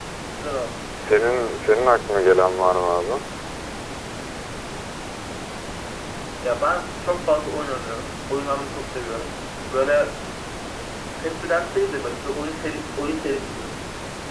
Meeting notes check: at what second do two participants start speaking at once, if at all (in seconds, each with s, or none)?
none